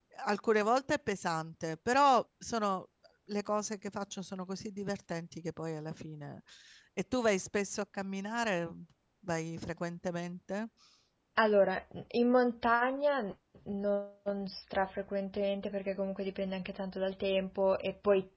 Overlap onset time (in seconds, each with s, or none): none